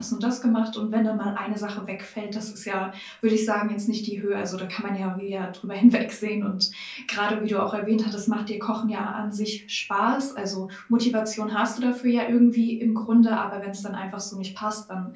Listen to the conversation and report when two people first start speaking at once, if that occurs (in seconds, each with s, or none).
none